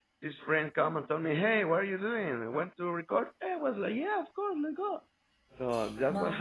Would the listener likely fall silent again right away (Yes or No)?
No